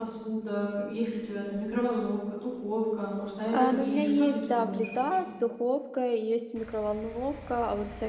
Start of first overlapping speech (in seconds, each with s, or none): 3.5 s